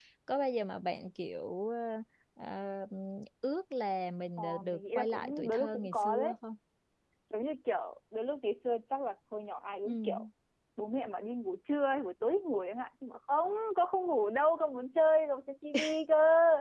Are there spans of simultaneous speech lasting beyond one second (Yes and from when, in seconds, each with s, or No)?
Yes, from 4.4 s